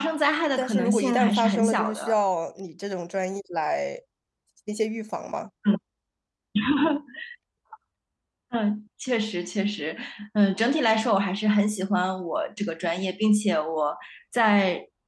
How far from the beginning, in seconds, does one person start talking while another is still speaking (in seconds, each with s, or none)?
0.6 s